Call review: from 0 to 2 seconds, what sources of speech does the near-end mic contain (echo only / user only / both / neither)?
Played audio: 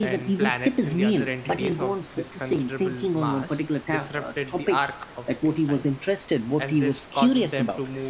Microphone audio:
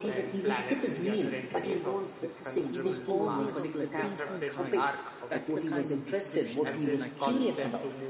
echo only